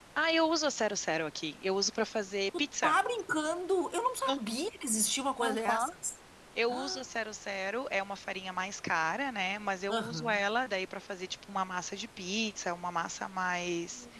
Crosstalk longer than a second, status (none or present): none